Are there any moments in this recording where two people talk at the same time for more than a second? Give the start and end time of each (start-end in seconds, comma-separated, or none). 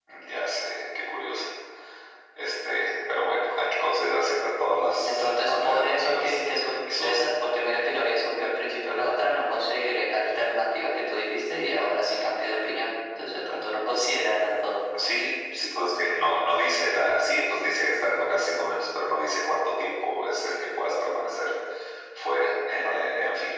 5.0-6.4